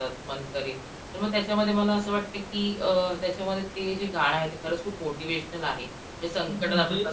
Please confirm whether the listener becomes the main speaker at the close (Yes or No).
No